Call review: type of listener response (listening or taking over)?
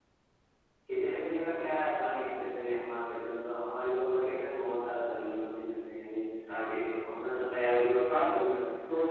taking over